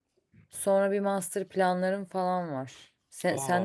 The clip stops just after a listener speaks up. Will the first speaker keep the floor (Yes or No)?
Yes